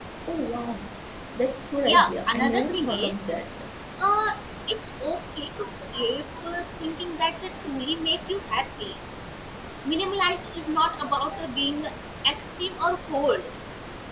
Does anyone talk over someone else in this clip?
Yes, from 1.9 s

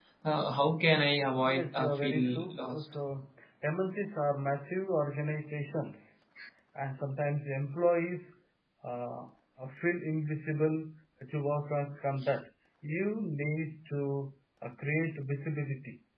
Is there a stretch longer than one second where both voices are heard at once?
Yes, from 1.5 s

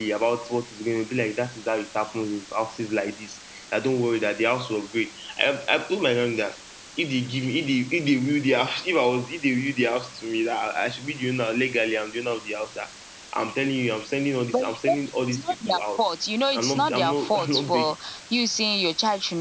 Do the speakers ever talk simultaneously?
Yes, from 14.5 s

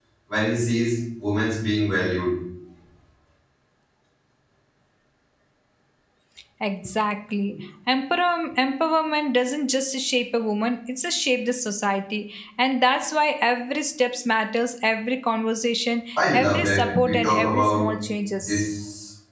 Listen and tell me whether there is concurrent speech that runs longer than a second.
Yes, from 16.3 s

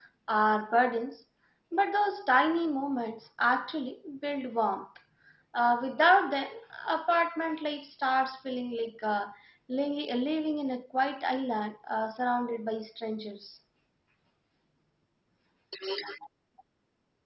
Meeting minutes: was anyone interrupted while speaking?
No

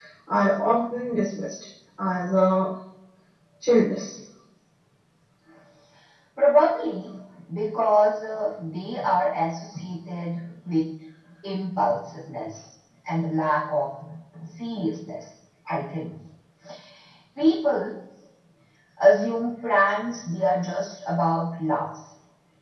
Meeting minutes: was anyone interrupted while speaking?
No

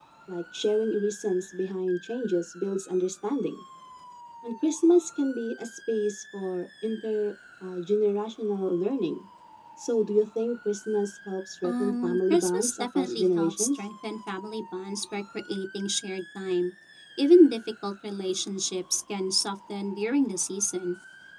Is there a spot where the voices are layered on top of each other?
Yes, from 11.6 s

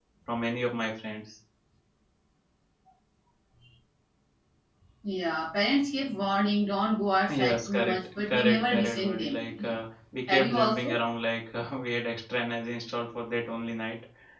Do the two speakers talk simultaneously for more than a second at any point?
Yes, from 7.3 s

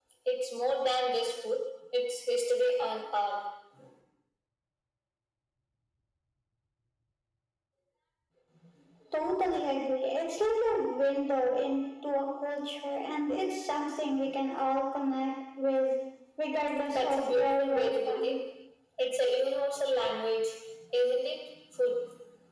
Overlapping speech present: Yes, from 16.9 s

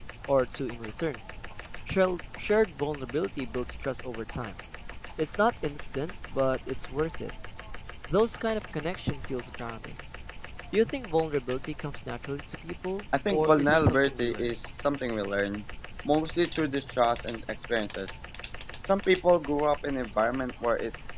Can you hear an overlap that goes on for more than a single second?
Yes, from 13.2 s

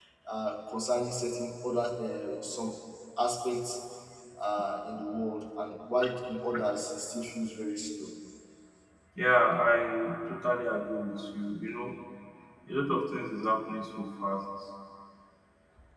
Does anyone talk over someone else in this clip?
No

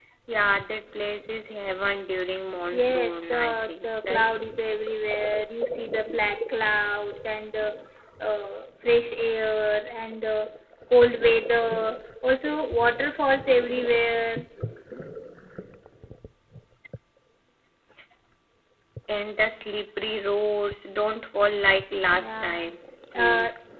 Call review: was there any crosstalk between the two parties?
Yes, from 2.7 s

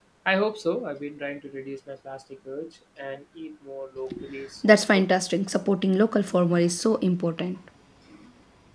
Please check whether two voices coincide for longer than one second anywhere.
No

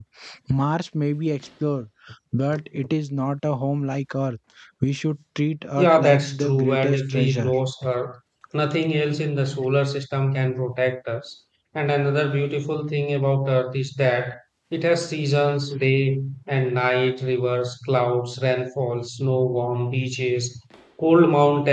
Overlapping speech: Yes, from 5.8 s

